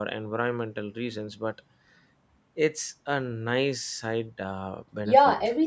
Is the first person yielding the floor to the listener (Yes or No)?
Yes